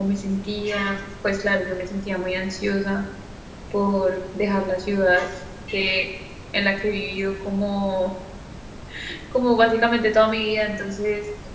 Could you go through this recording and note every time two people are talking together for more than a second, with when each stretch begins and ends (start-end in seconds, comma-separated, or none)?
none